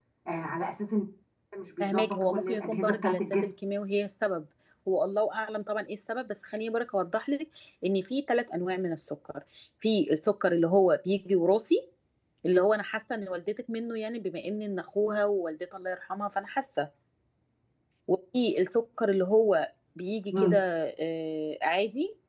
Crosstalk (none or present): present